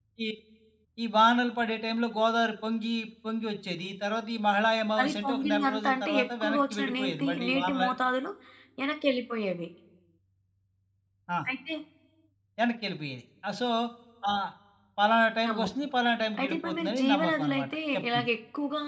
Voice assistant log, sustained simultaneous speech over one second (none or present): present